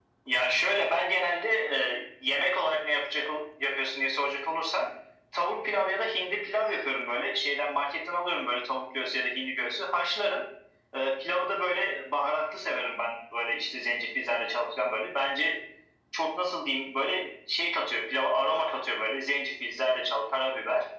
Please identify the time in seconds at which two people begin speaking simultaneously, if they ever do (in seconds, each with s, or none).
none